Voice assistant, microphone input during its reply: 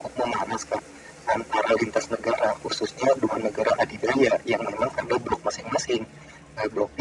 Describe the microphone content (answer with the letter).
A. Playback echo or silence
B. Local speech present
A